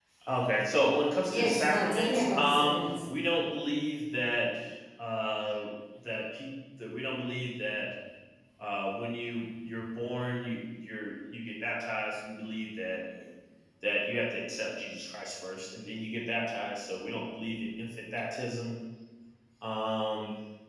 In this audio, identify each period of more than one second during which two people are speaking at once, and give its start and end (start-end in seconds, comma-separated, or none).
1.2-3.0